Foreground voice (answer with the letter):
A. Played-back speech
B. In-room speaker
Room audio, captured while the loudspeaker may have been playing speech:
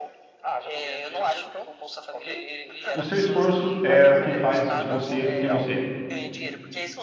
B